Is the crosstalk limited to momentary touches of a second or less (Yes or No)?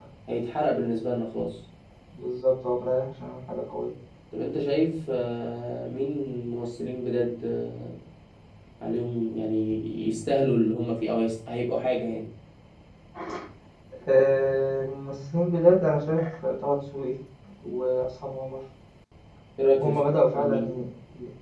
Yes